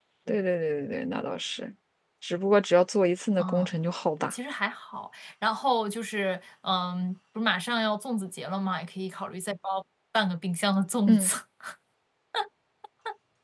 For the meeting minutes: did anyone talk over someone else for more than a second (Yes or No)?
No